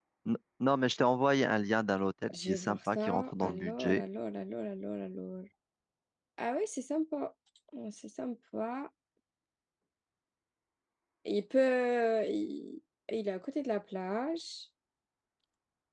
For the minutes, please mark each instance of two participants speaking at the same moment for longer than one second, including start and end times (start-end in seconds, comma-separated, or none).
2.4-4.0